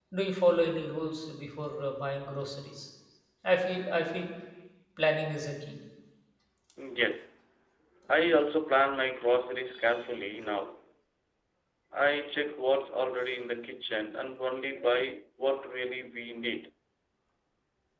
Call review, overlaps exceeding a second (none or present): none